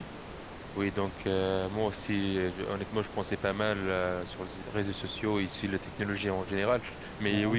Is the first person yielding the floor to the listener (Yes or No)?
No